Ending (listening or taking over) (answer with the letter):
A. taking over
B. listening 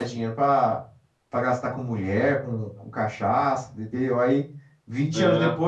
B